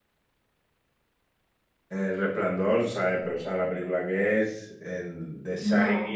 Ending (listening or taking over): listening